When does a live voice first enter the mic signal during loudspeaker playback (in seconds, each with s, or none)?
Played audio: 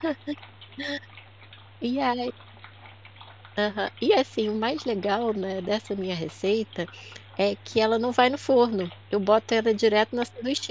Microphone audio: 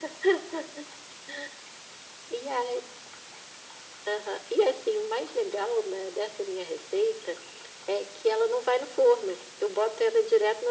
none